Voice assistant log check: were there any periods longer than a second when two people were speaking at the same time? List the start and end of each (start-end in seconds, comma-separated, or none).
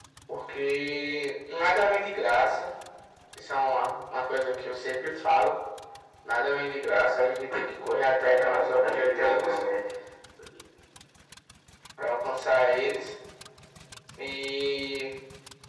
8.2-9.6